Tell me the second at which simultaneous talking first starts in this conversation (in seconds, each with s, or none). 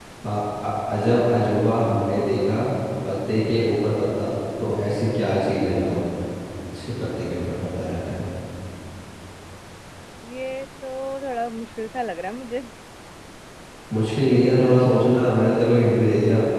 none